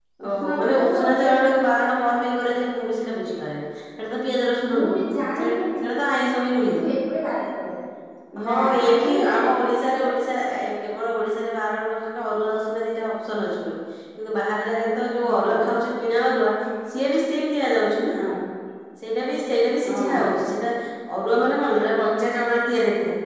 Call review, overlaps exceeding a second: present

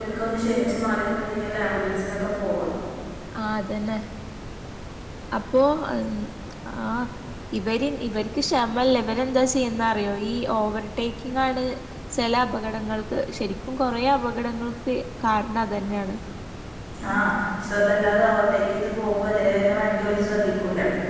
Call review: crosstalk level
none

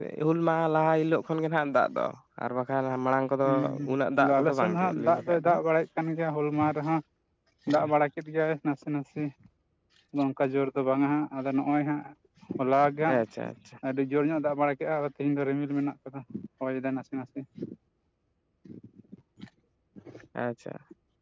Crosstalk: present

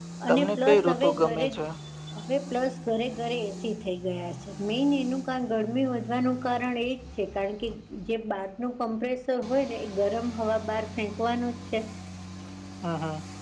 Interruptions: present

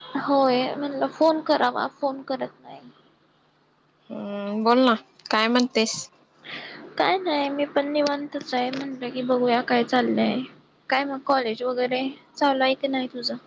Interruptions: none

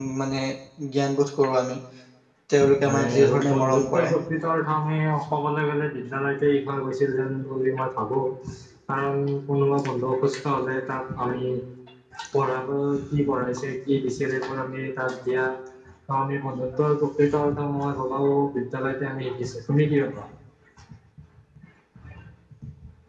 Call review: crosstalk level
present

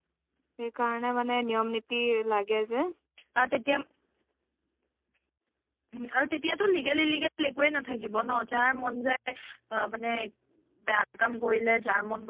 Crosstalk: none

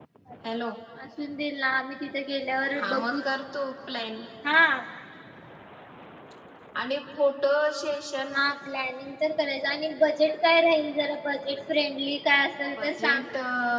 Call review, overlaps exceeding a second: none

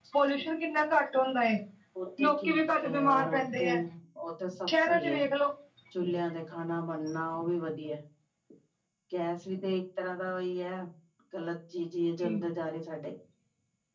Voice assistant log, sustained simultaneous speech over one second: present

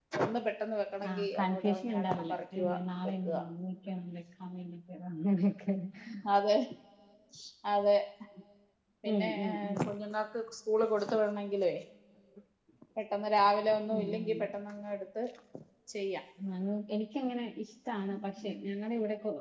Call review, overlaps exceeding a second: present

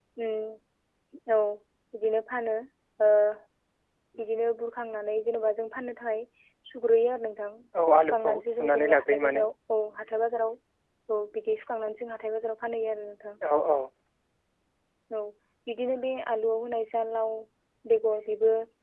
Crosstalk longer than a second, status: present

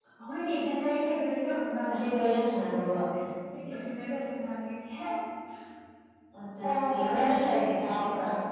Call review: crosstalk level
present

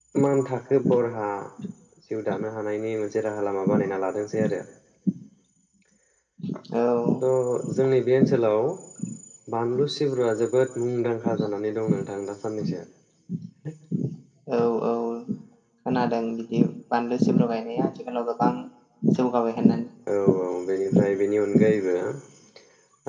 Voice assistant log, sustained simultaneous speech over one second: none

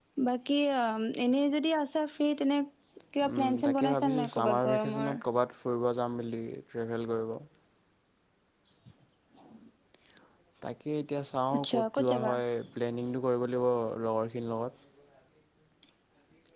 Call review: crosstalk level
present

